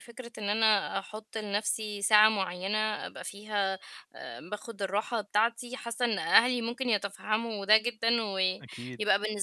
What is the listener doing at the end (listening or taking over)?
listening